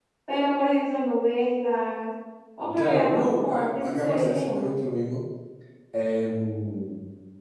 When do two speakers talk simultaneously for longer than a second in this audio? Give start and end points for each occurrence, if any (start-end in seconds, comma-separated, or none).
2.7-4.7